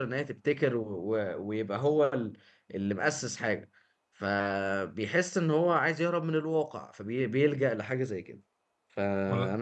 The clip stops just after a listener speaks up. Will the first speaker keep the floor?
Yes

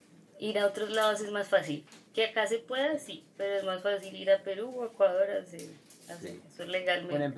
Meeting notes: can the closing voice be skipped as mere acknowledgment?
No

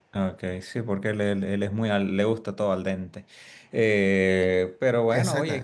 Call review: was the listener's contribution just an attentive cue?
Yes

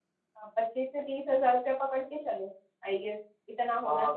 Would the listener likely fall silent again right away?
No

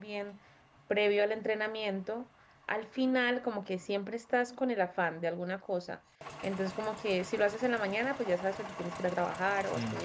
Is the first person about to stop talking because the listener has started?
No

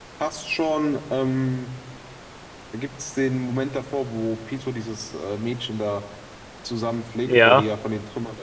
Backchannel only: Yes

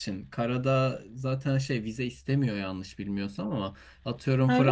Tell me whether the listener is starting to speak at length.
No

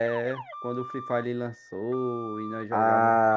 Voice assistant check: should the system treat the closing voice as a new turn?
Yes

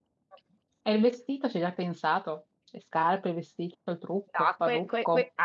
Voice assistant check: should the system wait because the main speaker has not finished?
No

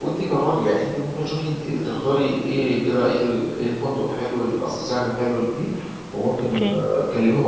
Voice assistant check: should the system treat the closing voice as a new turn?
No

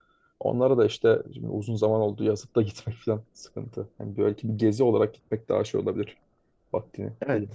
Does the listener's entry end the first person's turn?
Yes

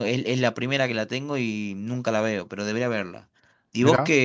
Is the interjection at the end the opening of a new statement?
No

